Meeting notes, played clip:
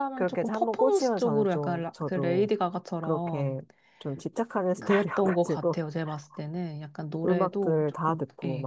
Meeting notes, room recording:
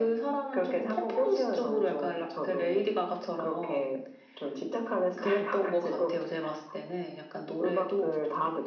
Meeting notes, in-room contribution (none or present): none